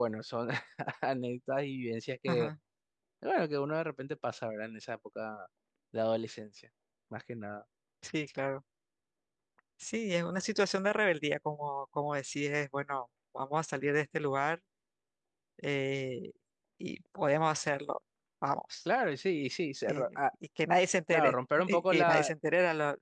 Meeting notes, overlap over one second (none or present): present